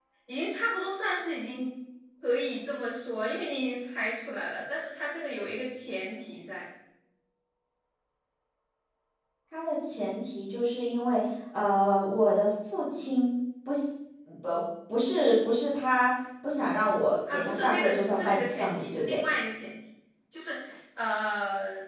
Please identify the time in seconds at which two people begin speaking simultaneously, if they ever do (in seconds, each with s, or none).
17.3 s